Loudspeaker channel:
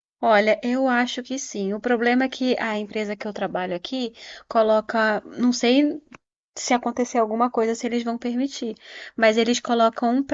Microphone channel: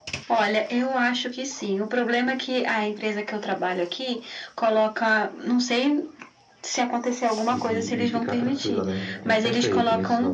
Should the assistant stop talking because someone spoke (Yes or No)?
Yes